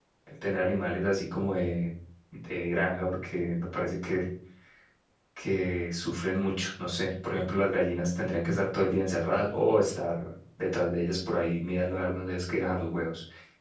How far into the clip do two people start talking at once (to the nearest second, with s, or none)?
none